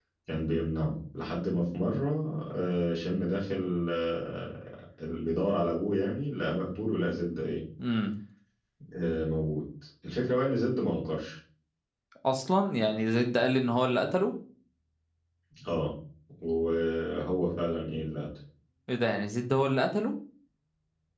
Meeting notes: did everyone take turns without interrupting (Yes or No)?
Yes